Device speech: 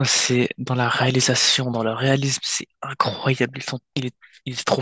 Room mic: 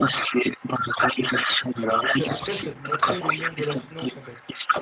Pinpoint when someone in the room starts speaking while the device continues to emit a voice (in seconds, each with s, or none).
2.0 s